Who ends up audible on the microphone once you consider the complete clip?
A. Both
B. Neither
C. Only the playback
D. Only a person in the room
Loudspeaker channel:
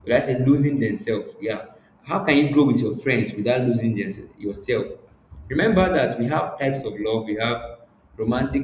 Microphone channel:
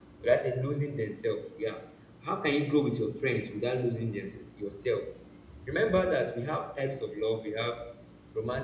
C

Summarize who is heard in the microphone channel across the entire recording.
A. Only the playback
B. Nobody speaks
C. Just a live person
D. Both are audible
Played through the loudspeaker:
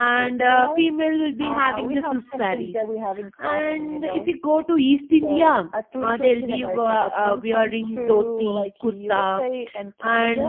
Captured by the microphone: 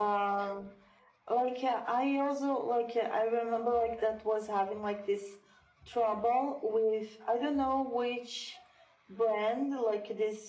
C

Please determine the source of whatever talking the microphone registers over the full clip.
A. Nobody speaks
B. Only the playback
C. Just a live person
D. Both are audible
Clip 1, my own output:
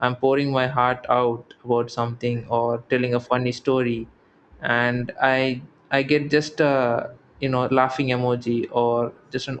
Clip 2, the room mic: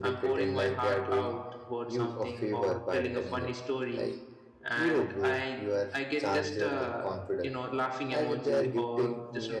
D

